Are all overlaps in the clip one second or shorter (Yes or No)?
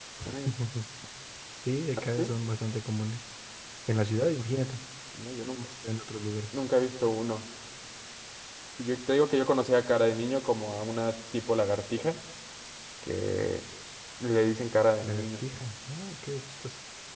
Yes